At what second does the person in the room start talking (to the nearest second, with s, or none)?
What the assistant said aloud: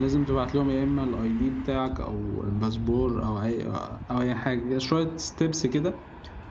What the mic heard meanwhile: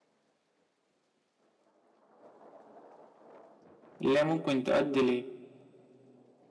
4 s